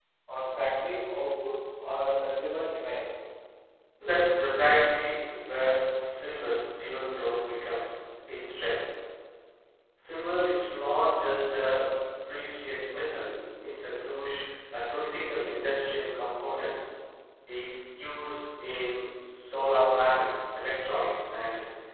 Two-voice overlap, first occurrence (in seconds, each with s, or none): none